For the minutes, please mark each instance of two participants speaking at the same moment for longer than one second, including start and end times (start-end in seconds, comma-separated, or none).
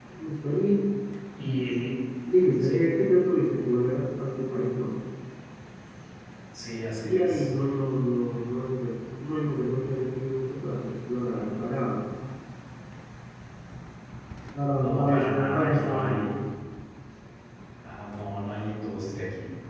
14.7-16.4